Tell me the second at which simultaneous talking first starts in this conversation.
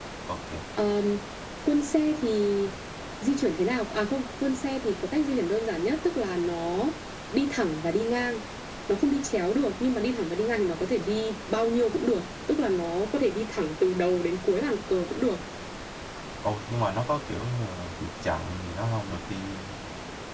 none

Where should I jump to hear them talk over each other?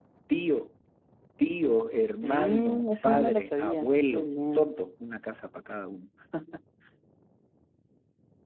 2.2 s

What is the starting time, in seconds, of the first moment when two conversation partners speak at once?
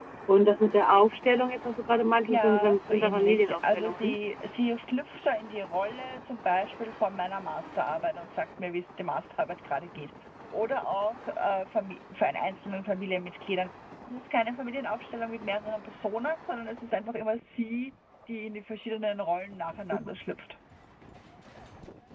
2.3 s

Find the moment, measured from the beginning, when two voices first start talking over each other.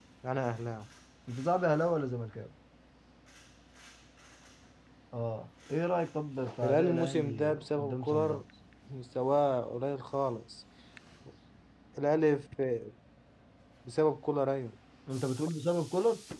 6.6 s

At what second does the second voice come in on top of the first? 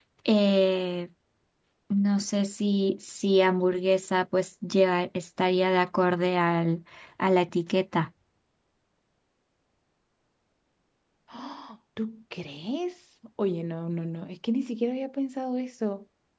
none

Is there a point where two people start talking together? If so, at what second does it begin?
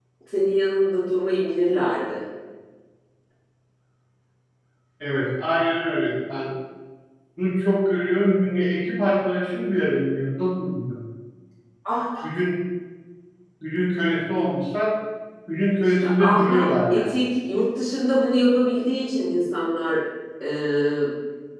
15.8 s

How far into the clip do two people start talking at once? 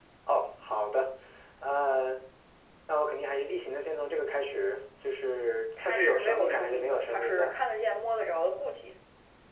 5.8 s

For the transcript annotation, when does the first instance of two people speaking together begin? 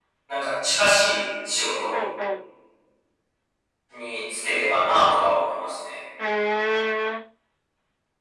none

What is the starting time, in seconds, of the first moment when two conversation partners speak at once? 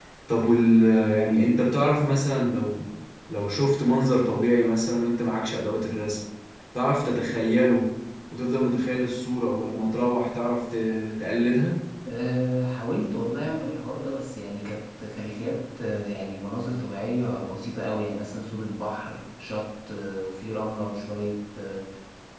none

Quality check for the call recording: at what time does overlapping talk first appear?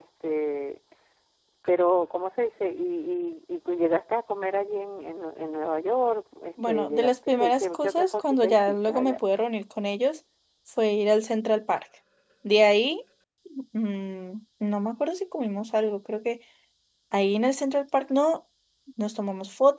6.6 s

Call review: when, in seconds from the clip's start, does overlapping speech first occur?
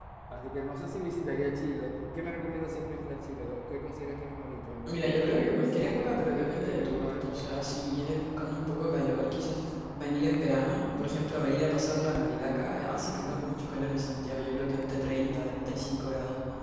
4.9 s

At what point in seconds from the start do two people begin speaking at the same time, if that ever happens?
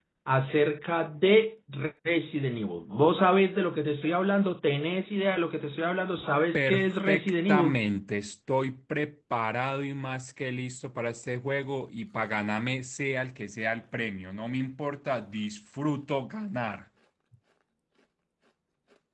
6.5 s

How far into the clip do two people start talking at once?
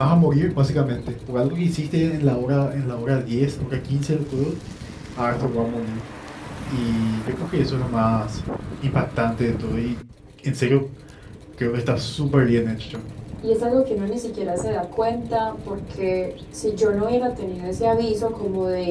none

